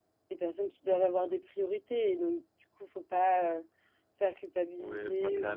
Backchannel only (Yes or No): No